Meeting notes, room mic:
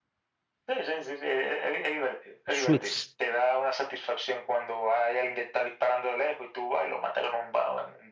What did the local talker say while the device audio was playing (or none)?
Suits,